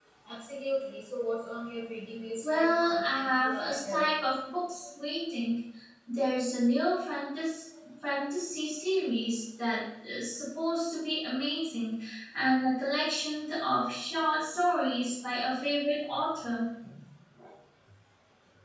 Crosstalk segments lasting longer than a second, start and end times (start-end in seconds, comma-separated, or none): 2.4-4.1